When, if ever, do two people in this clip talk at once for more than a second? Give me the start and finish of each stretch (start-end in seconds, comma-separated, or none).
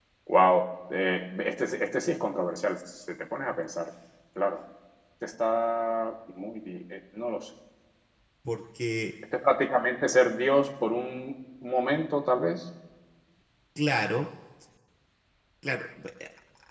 none